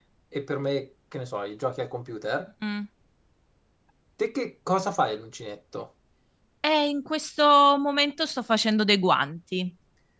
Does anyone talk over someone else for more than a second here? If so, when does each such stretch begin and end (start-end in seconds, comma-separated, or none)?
none